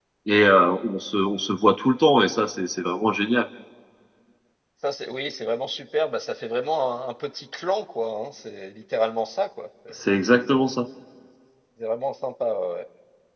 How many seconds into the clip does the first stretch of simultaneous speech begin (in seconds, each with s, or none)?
none